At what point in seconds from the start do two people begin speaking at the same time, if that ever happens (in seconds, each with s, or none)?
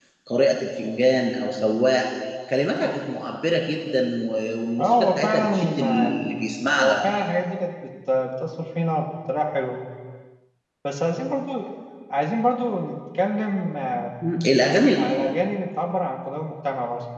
4.8 s